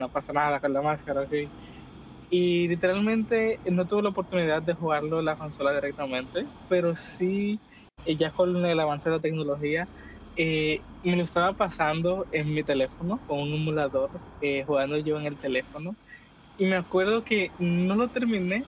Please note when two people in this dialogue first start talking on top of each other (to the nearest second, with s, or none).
none